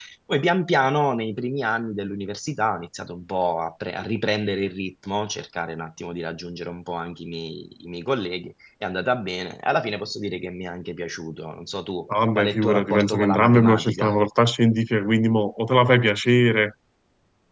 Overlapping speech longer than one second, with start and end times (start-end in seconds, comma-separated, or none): 12.1-14.2